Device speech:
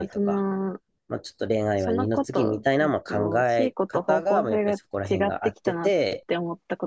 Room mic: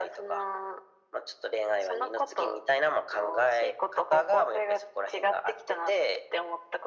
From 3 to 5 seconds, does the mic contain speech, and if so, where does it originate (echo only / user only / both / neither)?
echo only